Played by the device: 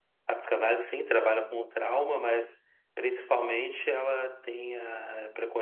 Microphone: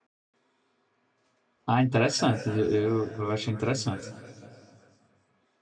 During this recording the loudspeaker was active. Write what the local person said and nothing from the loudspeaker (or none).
Ah, interessante. Eu, eu eu achei interessante.